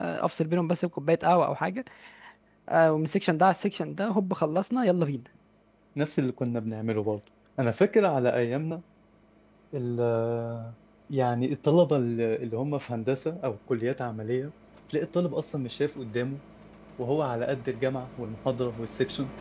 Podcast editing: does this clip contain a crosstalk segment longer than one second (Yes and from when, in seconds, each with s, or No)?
No